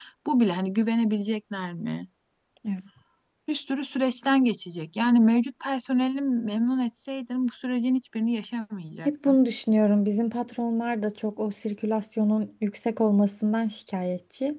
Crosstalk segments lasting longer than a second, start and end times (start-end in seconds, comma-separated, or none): none